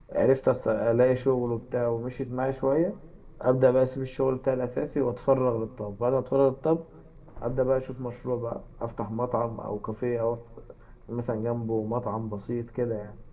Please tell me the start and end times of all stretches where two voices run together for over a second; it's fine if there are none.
none

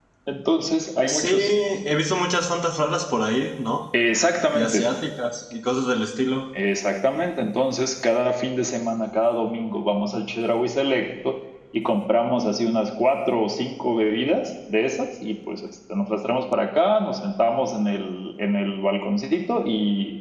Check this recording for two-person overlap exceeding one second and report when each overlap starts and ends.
none

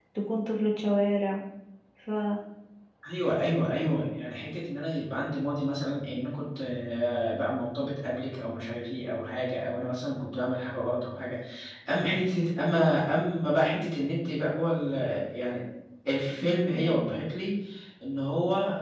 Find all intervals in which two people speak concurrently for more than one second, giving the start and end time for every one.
none

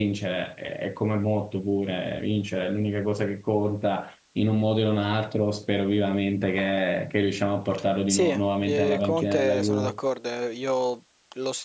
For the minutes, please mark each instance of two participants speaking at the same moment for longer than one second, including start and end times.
8.1-9.9

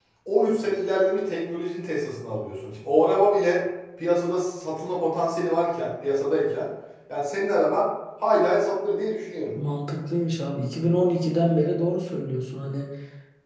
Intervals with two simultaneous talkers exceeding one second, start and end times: none

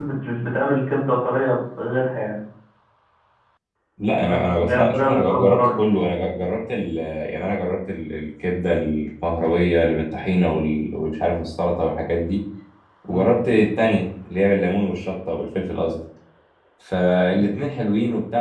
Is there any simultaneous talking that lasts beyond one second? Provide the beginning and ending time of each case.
4.3-5.6

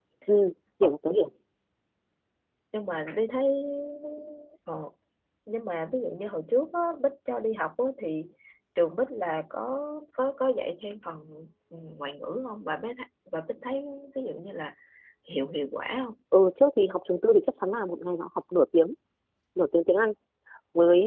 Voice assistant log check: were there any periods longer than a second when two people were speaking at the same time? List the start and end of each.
none

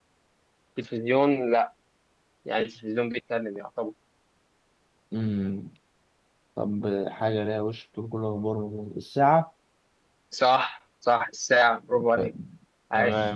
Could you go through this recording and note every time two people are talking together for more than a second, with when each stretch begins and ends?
none

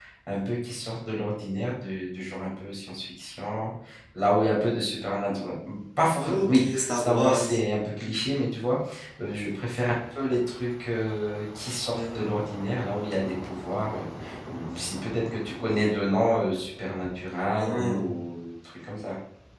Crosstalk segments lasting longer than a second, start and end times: 6.2-7.6

